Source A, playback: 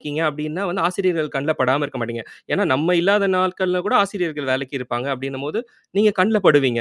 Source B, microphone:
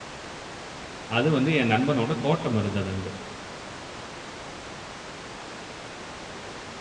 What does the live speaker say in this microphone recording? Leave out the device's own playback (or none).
அது வந்து என் நண்பனோட தோட்டம் இருந்தது அங்க.